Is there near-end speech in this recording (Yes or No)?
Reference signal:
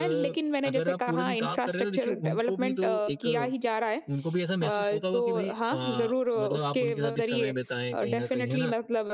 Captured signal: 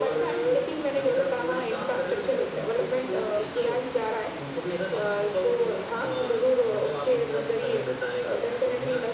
No